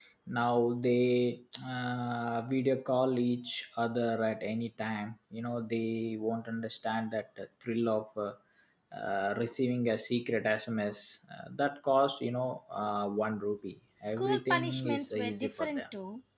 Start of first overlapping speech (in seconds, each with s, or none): 14.0 s